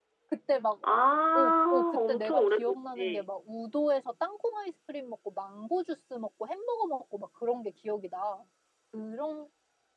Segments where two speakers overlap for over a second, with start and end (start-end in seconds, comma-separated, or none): 1.4-3.3